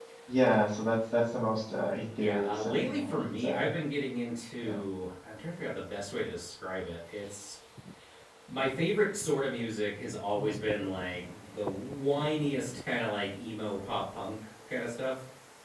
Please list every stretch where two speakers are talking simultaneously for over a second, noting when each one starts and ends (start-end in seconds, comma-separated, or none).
2.2-3.7